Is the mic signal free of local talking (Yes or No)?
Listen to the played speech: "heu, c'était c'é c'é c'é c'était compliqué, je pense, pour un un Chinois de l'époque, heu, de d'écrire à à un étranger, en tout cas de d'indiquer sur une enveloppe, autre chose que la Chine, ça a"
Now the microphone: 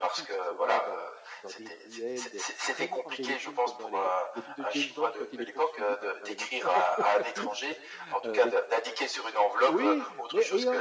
No